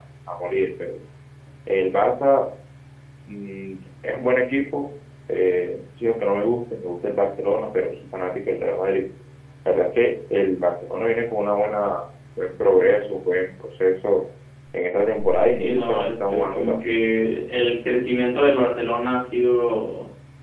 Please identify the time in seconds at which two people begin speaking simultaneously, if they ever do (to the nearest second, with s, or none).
15 s